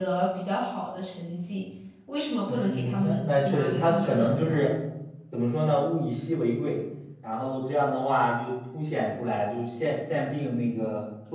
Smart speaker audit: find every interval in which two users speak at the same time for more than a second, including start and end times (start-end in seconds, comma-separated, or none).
2.5-4.6